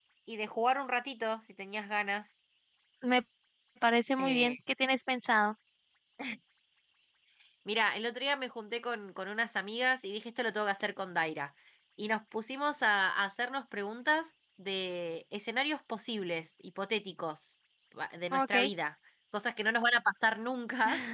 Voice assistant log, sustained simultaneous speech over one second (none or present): none